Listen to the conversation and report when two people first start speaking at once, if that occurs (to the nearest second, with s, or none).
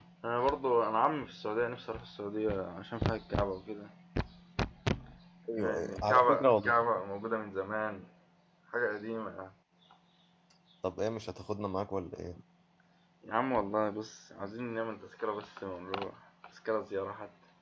6 s